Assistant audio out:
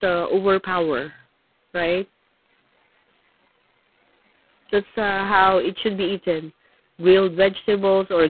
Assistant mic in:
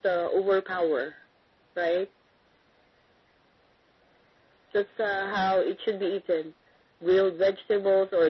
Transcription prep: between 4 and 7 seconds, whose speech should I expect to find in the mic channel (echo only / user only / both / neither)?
echo only